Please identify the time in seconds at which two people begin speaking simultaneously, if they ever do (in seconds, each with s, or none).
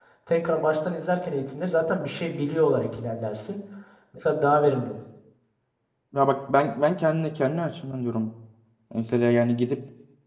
none